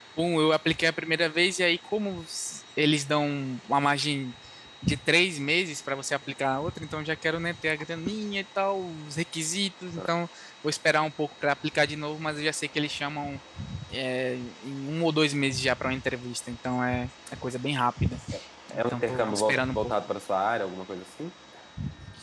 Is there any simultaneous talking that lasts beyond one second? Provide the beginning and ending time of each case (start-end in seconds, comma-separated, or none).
18.7-20.1